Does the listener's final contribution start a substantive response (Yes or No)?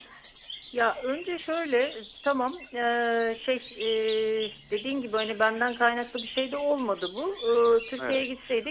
No